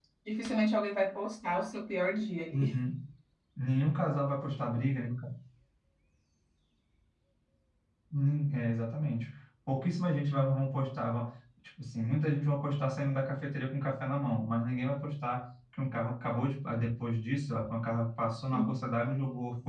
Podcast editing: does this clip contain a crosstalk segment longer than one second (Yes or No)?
No